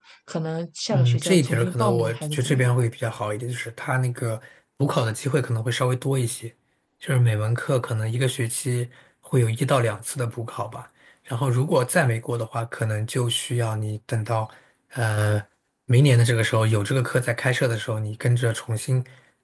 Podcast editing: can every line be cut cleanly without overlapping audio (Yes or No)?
No